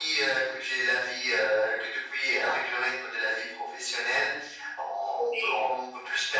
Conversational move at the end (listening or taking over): listening